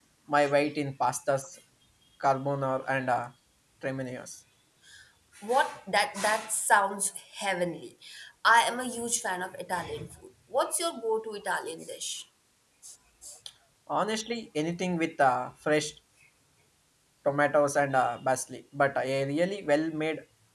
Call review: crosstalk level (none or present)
none